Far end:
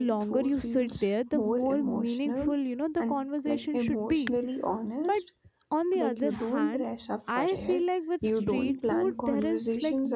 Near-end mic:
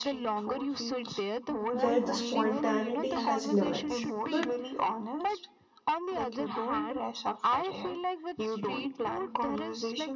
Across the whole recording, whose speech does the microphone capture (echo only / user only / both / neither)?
both